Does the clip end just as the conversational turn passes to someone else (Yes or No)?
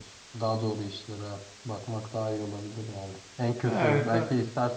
No